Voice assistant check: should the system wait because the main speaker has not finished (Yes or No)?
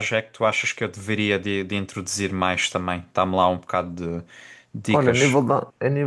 No